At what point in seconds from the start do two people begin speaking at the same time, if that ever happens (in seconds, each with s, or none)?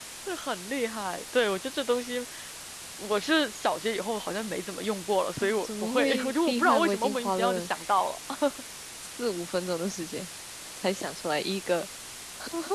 5.4 s